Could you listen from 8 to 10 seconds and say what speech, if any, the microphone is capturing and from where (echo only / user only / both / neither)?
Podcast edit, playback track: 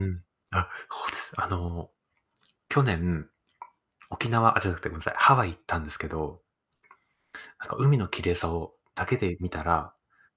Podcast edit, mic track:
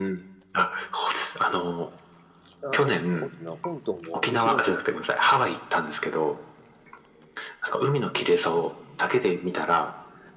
echo only